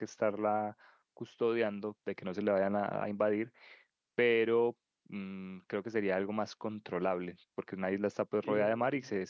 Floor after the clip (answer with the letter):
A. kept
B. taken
A